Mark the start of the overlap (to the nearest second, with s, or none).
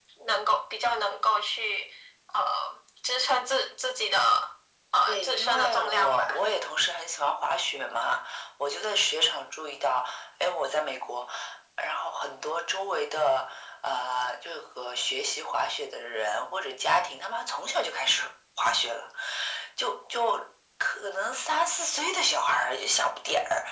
5 s